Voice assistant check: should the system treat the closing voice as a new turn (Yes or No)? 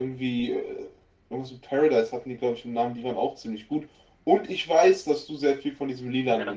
Yes